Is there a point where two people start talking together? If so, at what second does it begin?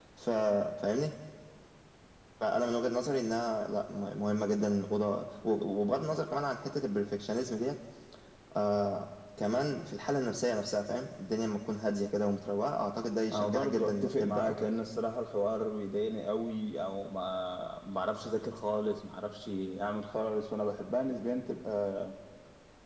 13.3 s

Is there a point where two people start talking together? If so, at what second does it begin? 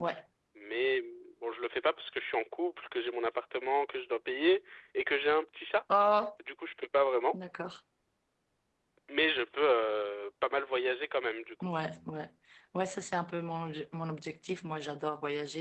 none

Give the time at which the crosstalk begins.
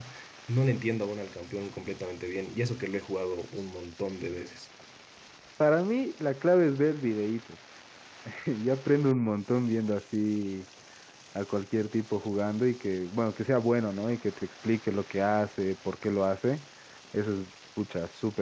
none

